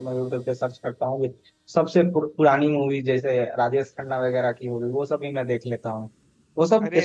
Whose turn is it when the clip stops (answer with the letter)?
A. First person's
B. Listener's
A